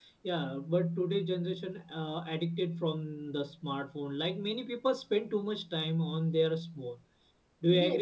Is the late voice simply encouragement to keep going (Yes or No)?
No